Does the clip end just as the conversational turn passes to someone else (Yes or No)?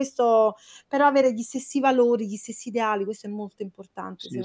Yes